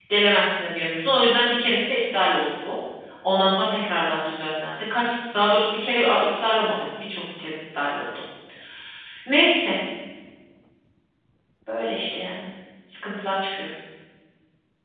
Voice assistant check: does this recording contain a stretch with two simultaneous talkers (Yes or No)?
No